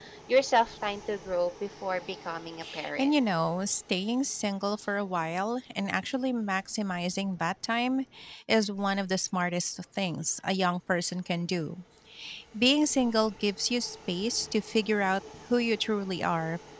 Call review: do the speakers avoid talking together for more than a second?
Yes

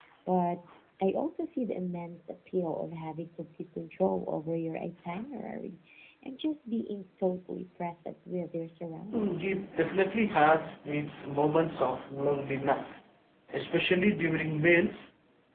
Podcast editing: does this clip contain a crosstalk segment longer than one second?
No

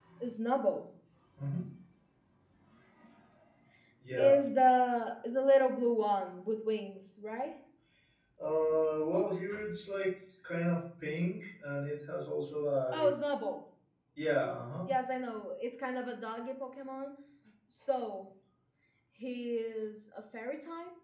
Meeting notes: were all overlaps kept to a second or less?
Yes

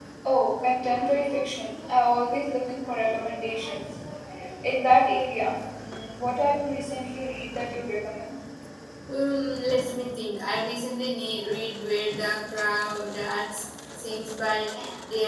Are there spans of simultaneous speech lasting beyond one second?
No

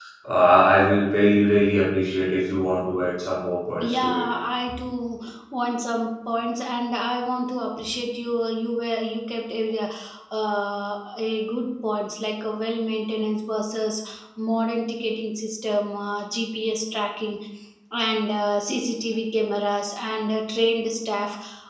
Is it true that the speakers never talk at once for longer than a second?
Yes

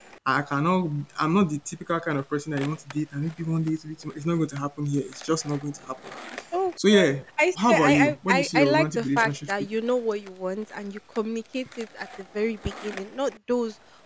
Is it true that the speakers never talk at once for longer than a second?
No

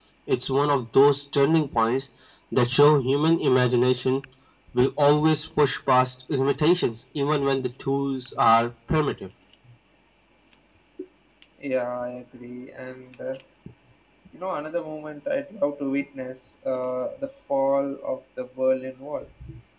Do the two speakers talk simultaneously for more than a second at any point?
No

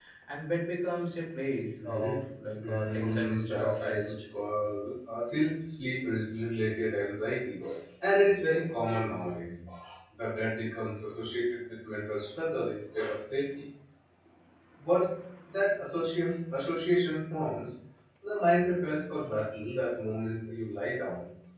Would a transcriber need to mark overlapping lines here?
Yes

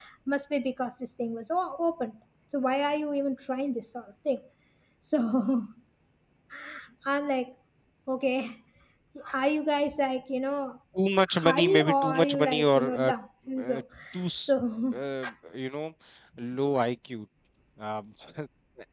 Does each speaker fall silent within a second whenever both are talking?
No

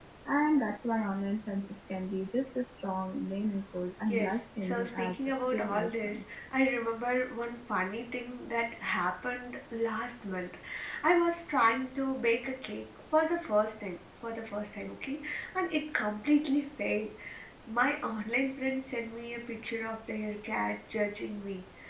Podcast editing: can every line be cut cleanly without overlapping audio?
No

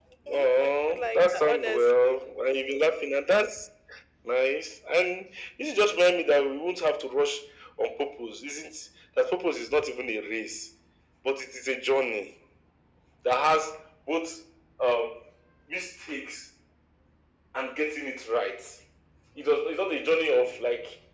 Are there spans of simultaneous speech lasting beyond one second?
Yes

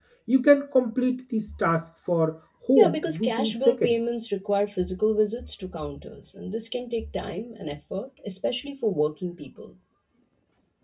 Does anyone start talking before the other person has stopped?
Yes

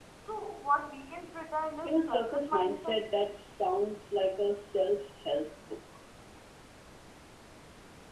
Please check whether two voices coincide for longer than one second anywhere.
Yes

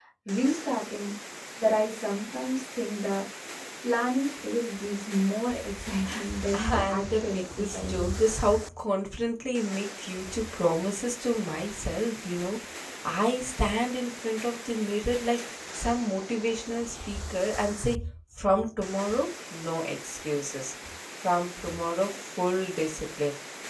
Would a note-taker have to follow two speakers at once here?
Yes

